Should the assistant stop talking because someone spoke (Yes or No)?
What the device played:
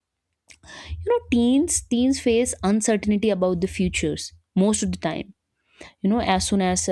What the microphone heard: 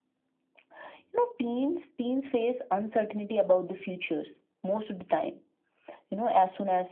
No